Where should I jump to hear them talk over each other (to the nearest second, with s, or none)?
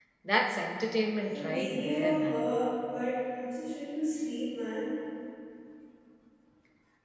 1 s